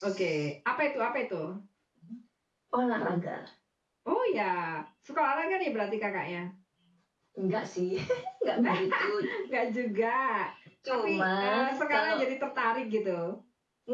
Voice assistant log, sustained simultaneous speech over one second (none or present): present